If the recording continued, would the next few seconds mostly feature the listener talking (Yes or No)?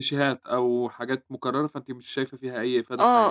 Yes